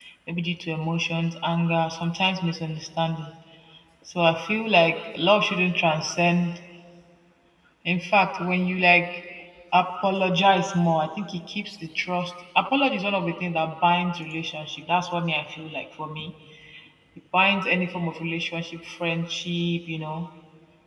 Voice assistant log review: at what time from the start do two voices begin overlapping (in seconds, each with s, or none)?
none